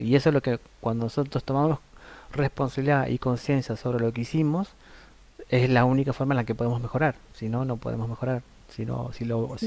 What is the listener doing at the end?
listening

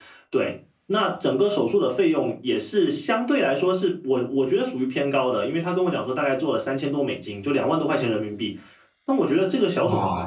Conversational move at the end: taking over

